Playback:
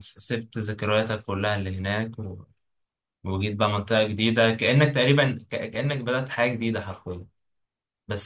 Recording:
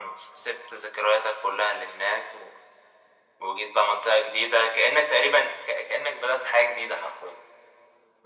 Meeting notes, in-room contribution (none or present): none